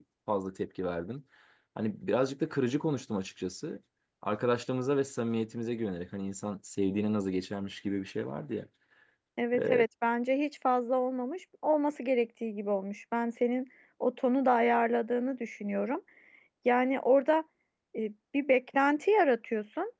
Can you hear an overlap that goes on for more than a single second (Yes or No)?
No